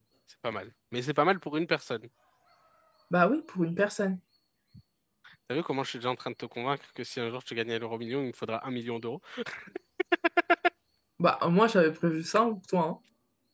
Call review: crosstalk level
none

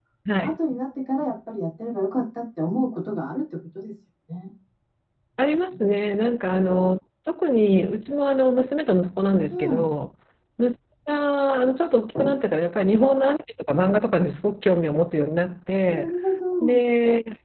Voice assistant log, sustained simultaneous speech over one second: none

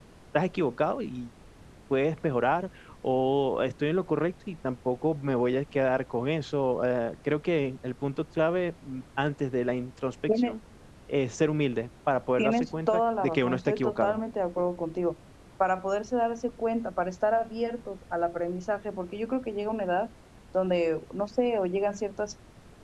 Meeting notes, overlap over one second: present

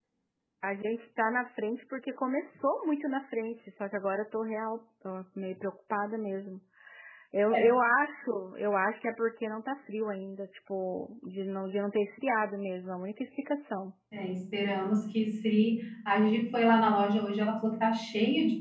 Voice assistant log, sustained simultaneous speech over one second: none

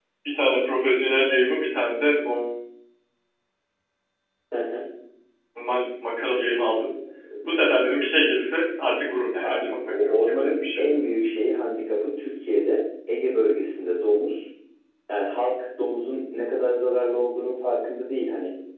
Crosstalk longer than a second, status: present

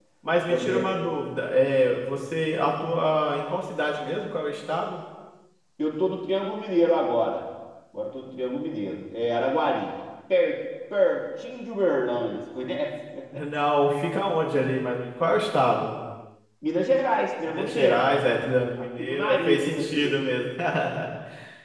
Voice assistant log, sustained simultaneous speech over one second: present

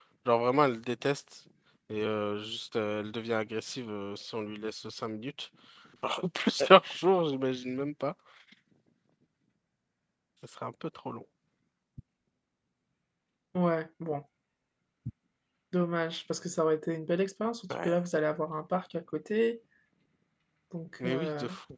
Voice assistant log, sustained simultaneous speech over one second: none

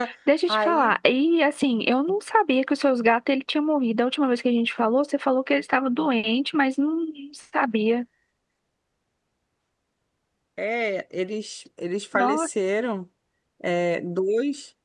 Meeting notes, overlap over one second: none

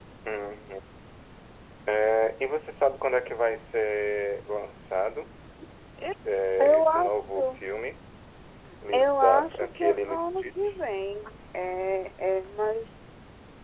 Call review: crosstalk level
present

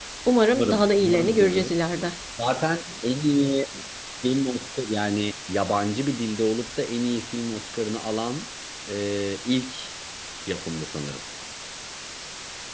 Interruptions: present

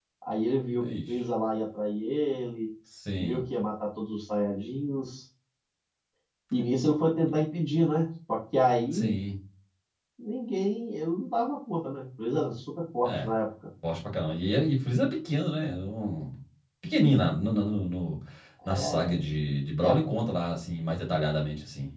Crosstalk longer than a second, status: none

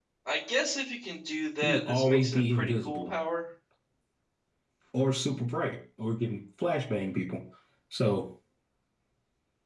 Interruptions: present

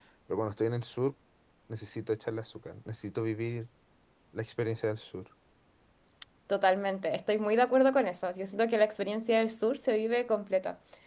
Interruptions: none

